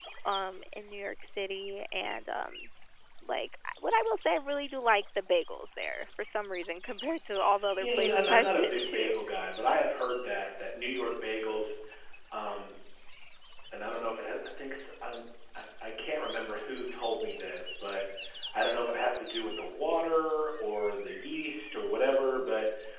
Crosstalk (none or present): present